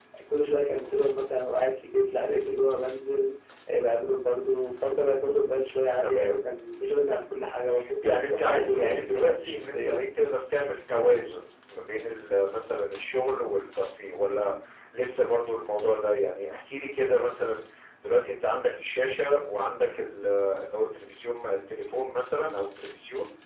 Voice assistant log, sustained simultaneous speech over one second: present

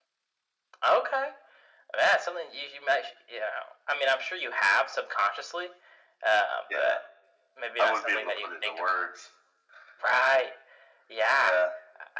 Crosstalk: present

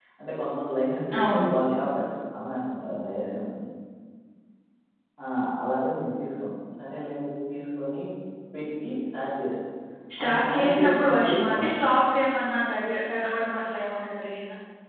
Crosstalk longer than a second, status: present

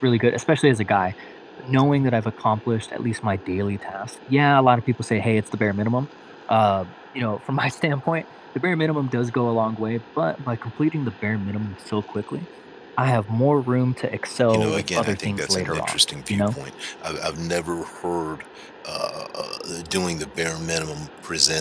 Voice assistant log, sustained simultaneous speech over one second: present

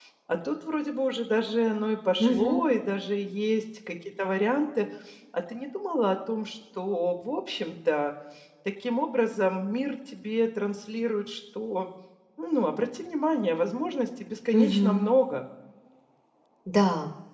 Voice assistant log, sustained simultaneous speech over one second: none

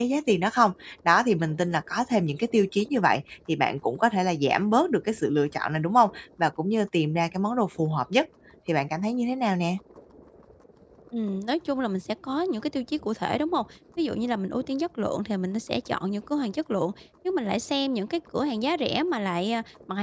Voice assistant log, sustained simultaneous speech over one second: none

